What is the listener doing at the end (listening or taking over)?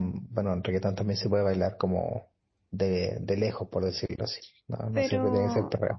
taking over